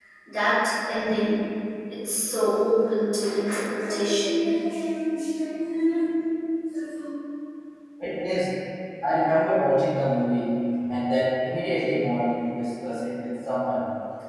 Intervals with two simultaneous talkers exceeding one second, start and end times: none

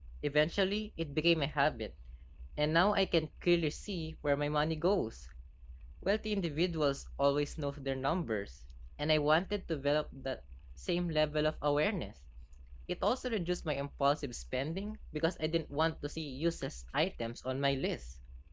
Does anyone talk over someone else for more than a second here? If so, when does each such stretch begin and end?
none

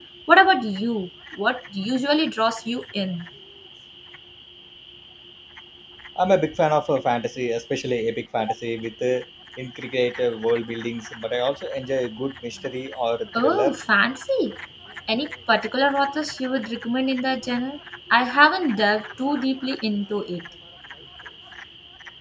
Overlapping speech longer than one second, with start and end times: none

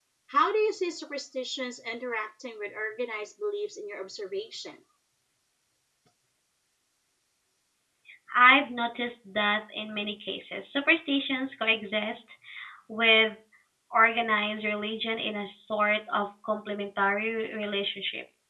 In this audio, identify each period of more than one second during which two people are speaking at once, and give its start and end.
none

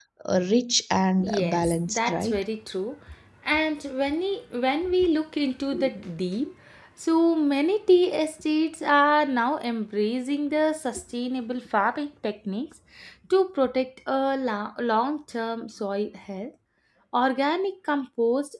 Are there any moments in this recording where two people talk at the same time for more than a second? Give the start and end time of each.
1.2-2.4

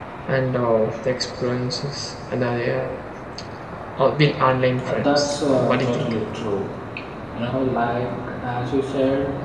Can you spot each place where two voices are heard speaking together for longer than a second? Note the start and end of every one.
4.8-6.1

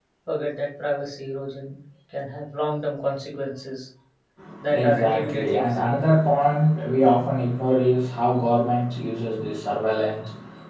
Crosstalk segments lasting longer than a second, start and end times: 4.7-5.9

